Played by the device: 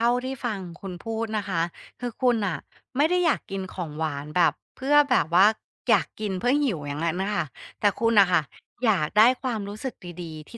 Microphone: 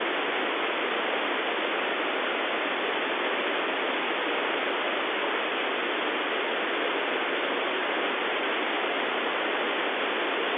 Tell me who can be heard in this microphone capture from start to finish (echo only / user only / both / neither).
neither